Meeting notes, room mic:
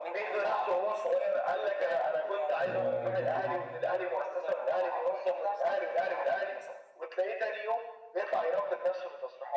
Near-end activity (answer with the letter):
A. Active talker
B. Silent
A